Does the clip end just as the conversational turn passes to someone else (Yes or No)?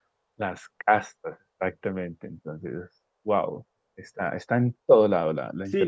Yes